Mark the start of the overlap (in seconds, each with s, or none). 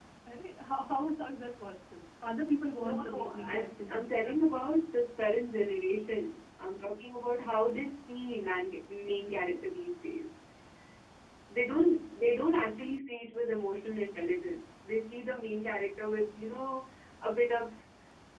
2.8 s